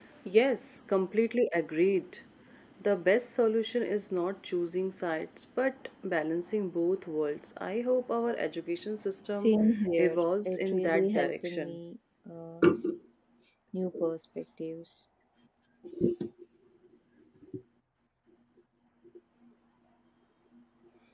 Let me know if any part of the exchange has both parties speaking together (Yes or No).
Yes